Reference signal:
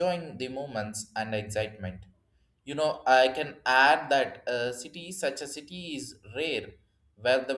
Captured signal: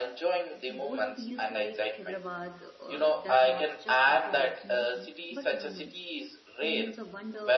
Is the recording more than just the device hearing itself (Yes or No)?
Yes